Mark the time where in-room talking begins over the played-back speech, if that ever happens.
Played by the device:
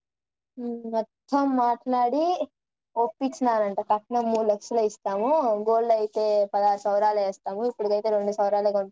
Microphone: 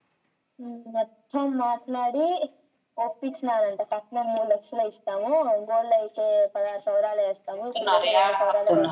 7.5 s

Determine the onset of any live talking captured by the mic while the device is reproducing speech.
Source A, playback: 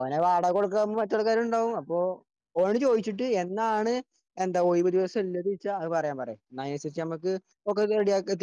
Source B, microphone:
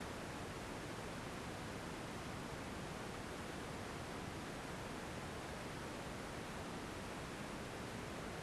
none

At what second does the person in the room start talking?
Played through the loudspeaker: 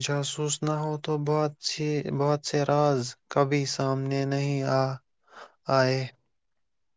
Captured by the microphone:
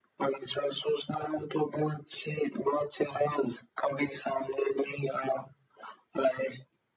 none

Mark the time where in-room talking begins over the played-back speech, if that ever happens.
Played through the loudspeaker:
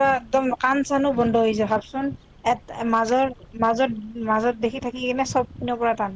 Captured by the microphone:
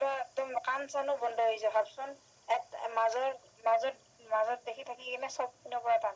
none

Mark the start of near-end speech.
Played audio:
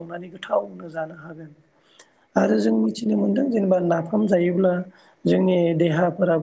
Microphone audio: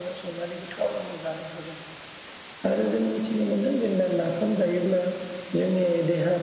none

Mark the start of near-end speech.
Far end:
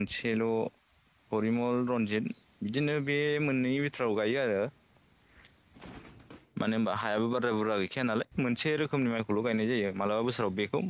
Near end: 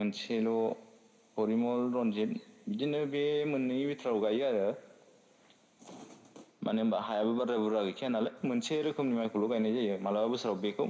none

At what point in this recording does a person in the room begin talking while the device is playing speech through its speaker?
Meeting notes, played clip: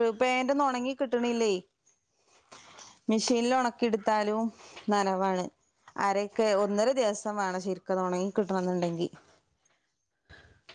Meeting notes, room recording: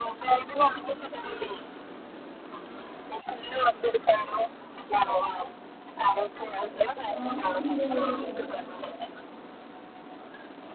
7.1 s

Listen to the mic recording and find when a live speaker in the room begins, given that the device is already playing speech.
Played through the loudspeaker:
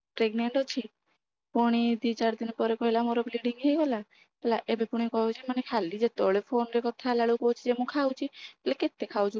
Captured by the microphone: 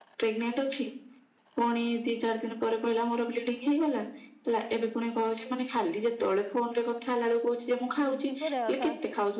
8.0 s

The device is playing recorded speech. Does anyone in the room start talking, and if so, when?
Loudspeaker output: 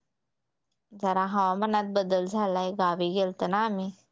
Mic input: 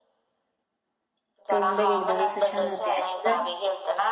1.5 s

